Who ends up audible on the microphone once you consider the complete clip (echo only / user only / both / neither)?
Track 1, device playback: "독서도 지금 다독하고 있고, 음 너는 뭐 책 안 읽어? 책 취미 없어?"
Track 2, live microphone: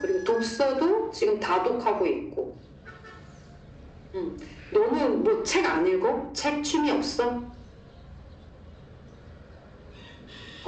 echo only